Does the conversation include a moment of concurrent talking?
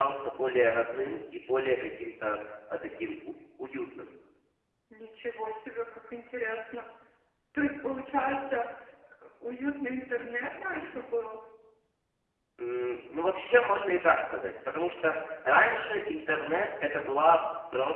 No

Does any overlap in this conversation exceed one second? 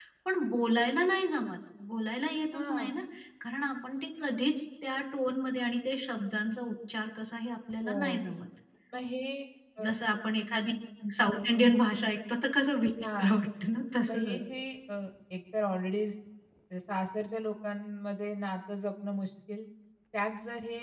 No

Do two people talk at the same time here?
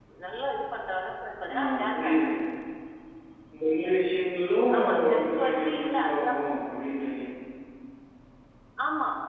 Yes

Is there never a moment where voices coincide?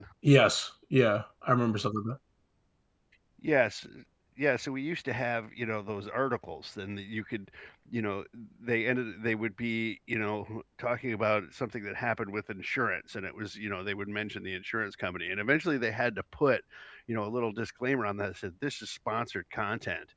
Yes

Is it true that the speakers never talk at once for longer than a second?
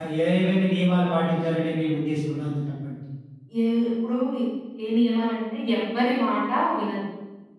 Yes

